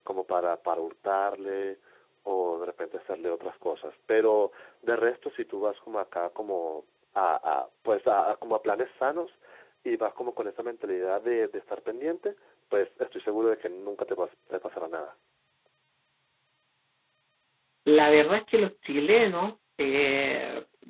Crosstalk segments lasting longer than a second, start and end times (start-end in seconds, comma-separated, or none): none